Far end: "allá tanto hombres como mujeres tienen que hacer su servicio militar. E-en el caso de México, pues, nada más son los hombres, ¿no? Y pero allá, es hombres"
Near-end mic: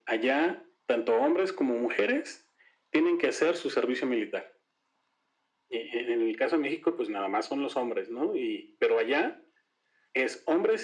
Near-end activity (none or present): none